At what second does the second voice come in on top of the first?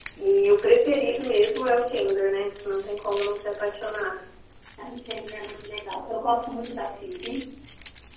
none

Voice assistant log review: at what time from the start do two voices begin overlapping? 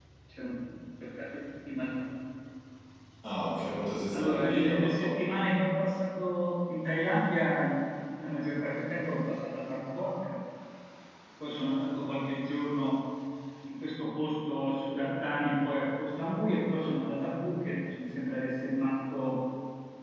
4.1 s

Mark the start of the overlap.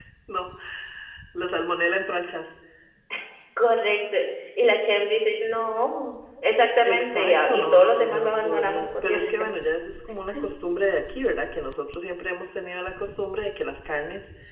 6.8 s

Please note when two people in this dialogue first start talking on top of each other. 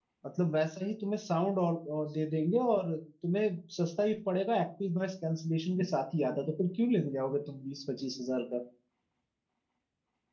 none

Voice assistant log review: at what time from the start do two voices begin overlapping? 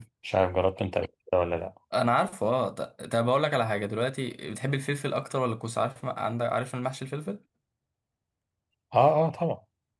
none

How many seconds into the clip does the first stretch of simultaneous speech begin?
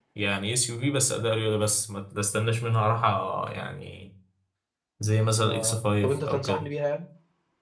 5.4 s

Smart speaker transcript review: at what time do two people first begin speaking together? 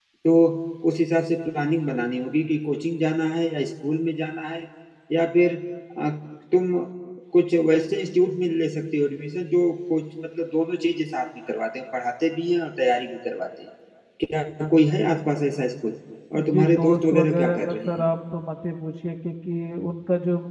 16.3 s

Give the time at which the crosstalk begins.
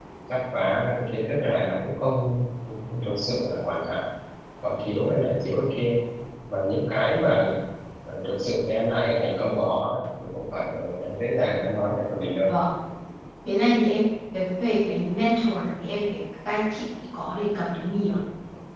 none

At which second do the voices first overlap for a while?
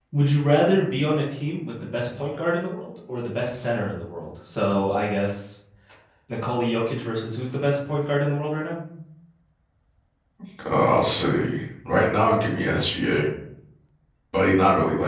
none

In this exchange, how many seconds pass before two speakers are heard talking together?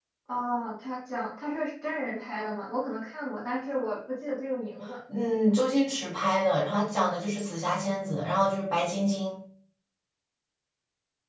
none

